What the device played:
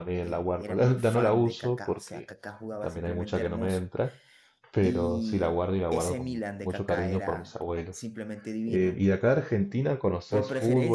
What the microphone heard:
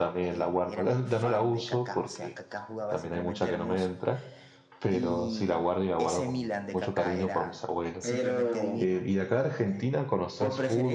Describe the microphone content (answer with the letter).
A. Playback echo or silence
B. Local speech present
B